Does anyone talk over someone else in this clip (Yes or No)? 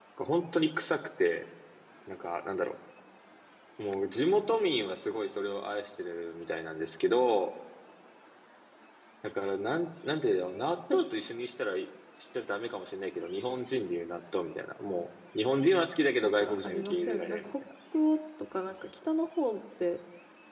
Yes